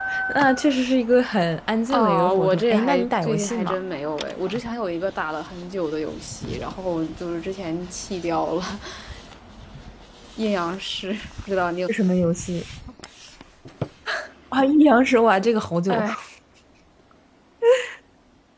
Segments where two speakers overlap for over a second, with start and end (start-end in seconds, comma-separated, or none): 1.9-3.8